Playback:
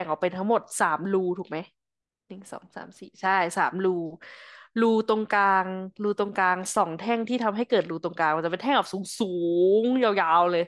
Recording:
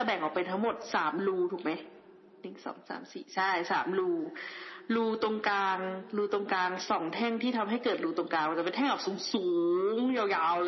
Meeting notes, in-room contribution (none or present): none